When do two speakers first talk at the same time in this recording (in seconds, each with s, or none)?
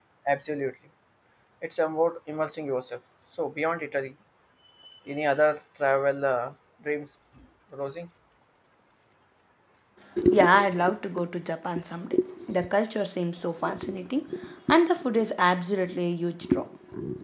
none